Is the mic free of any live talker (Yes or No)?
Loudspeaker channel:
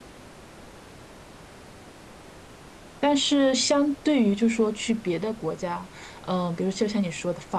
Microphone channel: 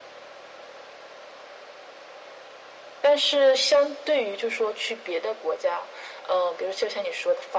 Yes